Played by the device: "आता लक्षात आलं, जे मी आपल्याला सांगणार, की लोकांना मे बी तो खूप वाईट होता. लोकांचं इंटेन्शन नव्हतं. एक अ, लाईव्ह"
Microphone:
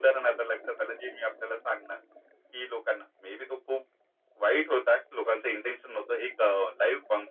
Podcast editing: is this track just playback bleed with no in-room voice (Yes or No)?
Yes